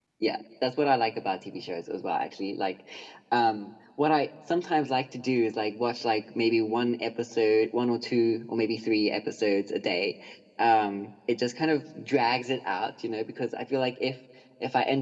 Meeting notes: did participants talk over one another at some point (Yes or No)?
No